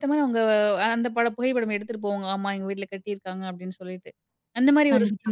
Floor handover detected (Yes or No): No